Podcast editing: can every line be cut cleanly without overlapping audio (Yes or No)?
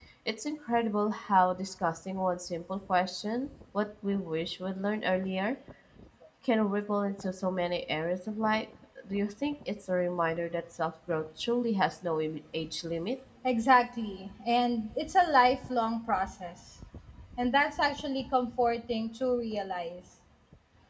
Yes